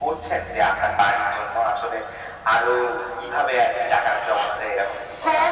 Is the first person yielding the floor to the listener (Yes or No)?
Yes